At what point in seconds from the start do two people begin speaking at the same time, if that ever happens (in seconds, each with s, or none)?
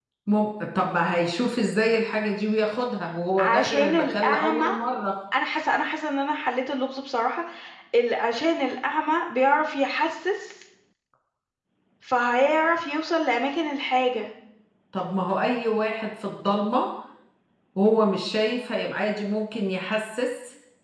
3.4 s